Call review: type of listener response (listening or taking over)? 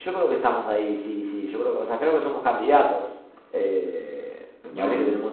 listening